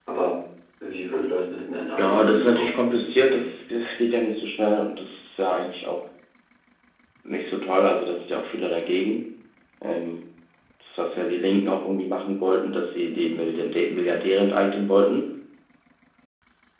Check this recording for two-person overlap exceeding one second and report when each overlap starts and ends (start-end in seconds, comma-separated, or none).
2.0-3.4